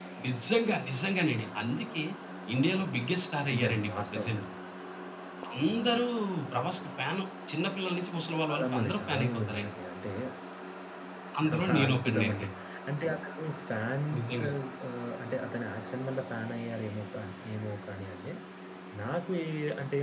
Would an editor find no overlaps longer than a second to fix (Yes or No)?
No